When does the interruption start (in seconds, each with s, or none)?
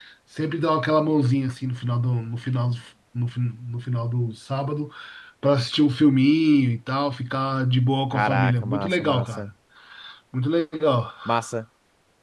8.1 s